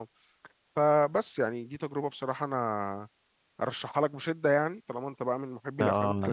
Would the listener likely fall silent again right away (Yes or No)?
No